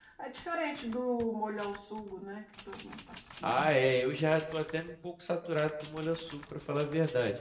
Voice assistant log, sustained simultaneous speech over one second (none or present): none